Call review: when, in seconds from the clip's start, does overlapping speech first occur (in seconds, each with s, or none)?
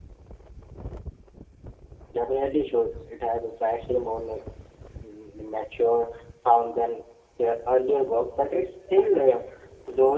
none